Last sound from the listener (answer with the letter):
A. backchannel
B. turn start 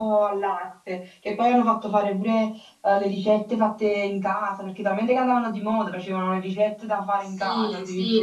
B